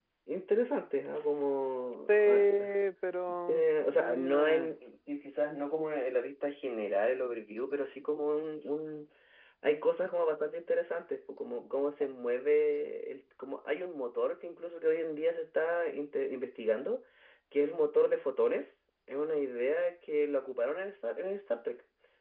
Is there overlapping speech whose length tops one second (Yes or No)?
Yes